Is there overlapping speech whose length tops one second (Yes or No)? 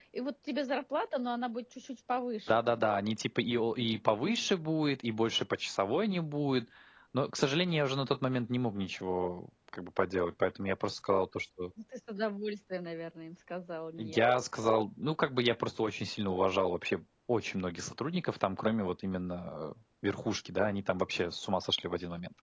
No